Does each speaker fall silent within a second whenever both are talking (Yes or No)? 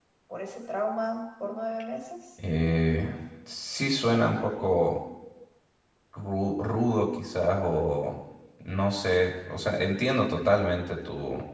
Yes